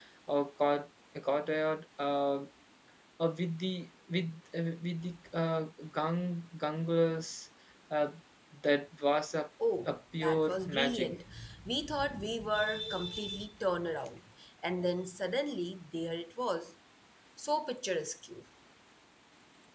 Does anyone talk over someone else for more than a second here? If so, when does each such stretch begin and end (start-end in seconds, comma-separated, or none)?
9.9-11.1